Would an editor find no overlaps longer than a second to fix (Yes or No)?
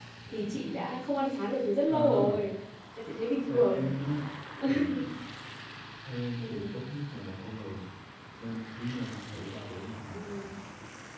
Yes